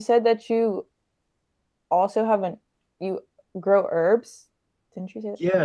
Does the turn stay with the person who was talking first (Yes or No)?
No